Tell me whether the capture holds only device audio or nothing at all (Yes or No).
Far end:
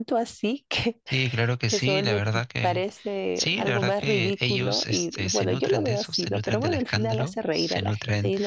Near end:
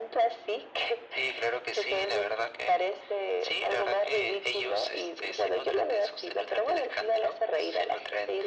Yes